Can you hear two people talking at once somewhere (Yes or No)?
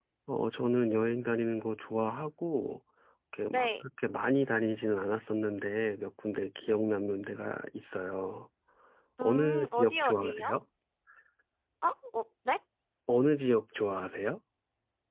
Yes